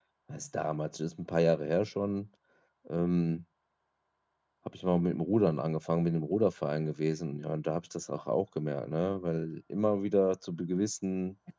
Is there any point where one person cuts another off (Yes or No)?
No